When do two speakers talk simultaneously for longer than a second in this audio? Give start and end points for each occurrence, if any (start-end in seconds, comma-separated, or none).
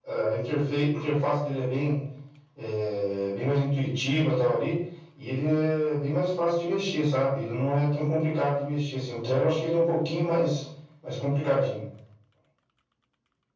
none